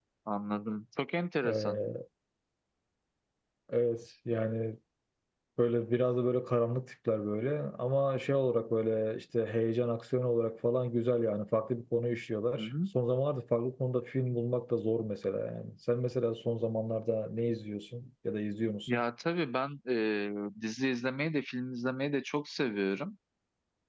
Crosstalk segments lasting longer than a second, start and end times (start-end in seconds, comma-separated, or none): none